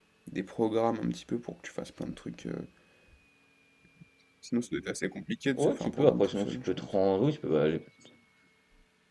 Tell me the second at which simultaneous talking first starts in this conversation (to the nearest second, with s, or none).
6 s